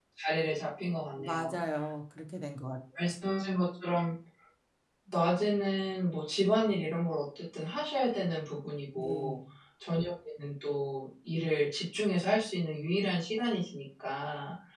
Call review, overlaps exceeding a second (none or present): none